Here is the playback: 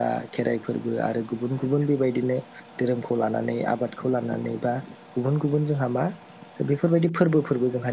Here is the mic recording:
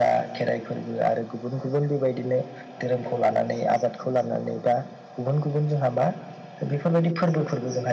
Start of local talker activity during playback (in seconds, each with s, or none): none